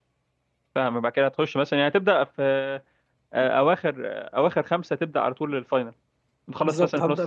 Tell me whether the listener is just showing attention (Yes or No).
No